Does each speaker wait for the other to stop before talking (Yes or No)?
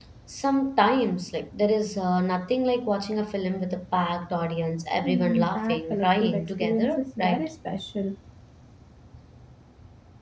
No